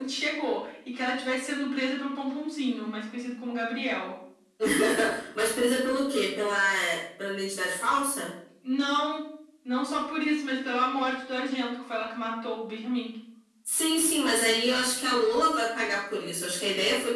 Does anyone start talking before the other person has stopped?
No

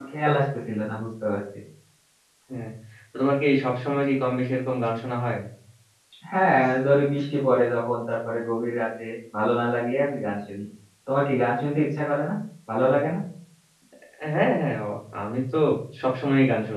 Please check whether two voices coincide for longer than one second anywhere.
No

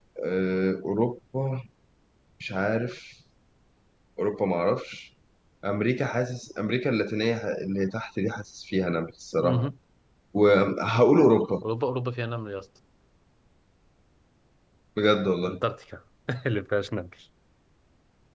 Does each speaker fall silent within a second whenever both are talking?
Yes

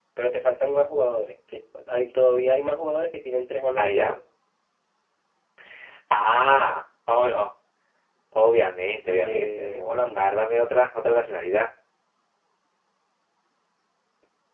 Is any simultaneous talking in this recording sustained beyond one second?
Yes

